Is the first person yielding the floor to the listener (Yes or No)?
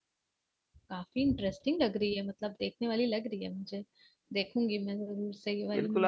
Yes